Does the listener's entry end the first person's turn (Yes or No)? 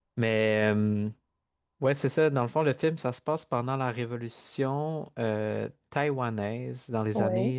No